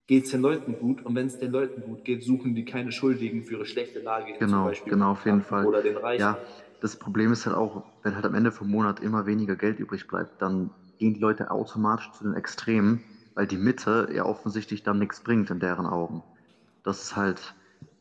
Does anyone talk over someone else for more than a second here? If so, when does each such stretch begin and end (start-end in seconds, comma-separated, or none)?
4.4-5.7